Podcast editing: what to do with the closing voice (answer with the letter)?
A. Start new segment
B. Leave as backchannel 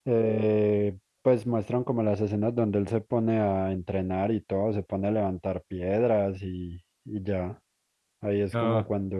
B